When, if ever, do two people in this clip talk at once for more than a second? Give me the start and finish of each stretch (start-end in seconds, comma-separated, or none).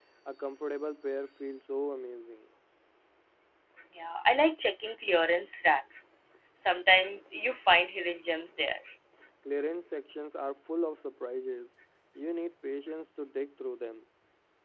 none